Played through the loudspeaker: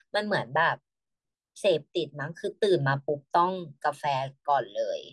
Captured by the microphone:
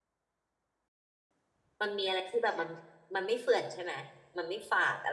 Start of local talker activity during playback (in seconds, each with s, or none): 1.8 s